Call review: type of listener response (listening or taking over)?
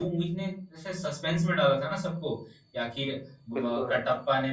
listening